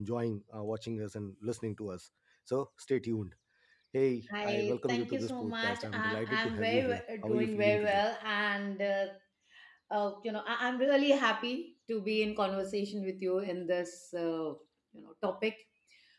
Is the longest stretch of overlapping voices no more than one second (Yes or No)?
No